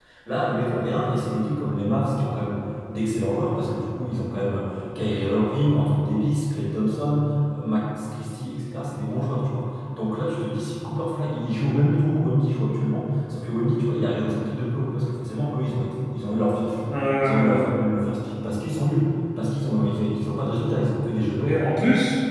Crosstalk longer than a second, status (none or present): none